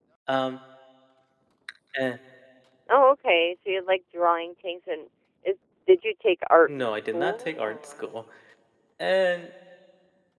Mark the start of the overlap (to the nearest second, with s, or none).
7 s